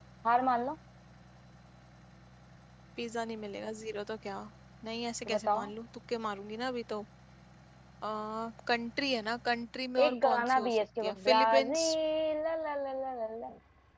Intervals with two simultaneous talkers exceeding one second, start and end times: 10.0-11.9

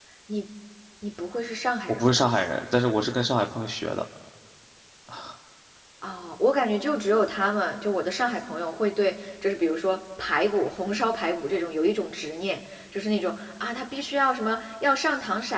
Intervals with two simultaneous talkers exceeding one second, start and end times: none

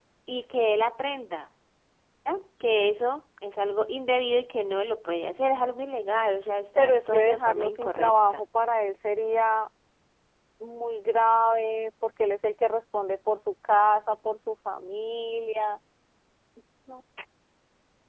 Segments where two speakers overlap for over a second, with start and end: 6.8-8.4

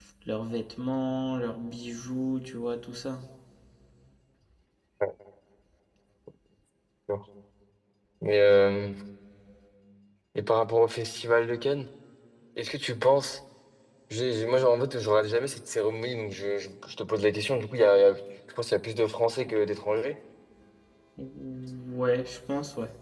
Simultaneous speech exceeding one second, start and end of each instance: none

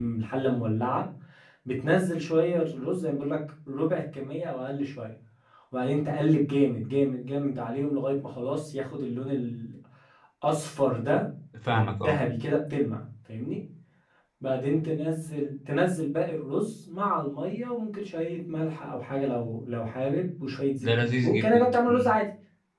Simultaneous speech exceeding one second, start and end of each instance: 20.8-22.1

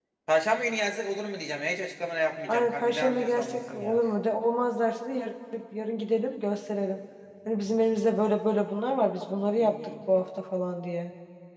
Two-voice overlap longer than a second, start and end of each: 2.5-4.0

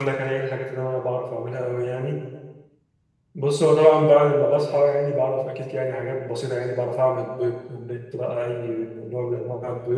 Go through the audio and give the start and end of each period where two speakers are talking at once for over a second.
none

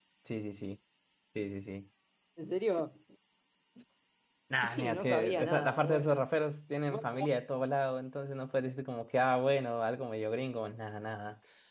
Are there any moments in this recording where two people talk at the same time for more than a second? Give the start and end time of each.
4.6-6.3

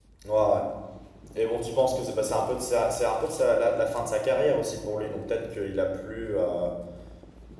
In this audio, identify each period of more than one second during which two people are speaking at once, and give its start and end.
none

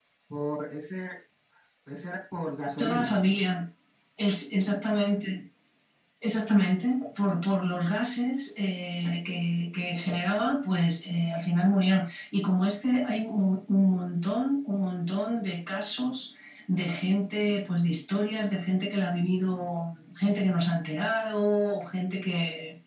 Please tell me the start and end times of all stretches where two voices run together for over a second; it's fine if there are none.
none

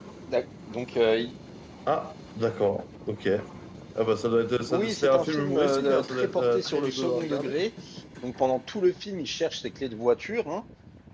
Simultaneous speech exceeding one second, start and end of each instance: 4.7-7.5

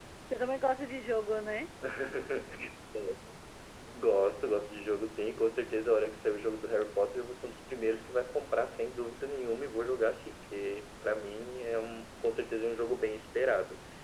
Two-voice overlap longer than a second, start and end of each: none

